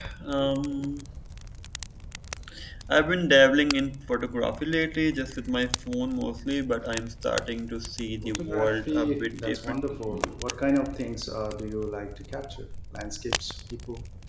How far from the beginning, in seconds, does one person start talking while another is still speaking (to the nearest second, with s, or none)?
8 s